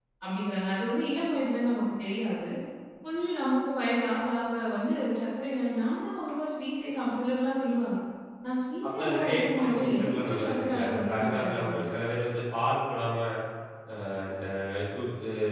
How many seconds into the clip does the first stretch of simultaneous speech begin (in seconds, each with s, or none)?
8.9 s